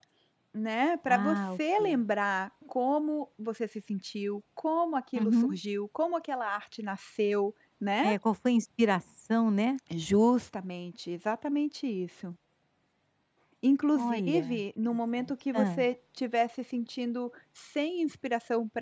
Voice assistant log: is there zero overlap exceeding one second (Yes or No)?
No